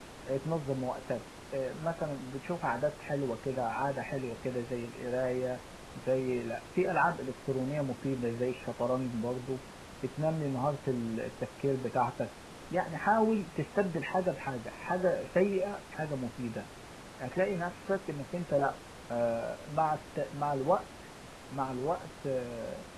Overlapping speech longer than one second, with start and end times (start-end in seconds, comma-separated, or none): none